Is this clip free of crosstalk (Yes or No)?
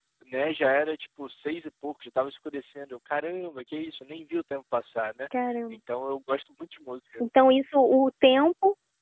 Yes